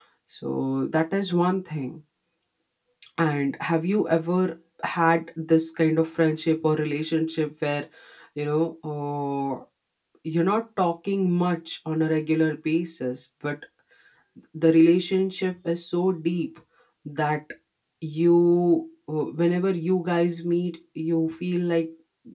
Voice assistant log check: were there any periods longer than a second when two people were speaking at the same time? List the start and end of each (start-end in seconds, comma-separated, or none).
none